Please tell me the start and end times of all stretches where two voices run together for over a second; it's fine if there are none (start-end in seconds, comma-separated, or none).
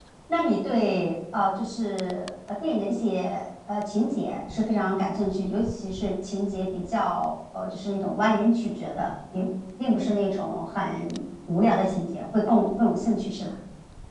none